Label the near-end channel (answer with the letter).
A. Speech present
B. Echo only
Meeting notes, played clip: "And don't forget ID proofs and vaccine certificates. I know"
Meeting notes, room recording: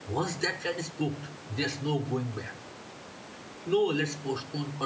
A